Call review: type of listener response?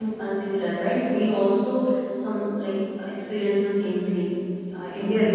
taking over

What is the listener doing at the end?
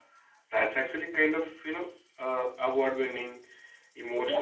taking over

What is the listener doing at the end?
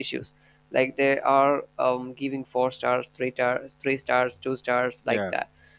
listening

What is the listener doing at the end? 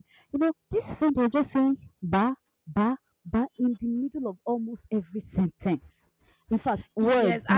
taking over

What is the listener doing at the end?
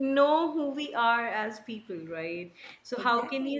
listening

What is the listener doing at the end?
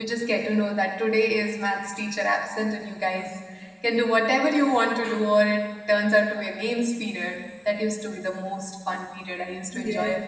taking over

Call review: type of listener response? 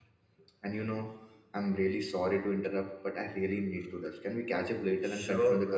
taking over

